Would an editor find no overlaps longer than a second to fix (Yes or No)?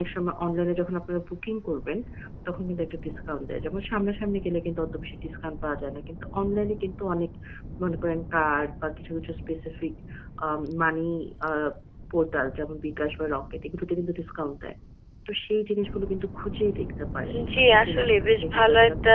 No